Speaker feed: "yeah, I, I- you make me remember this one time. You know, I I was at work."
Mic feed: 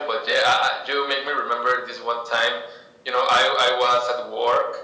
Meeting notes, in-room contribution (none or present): none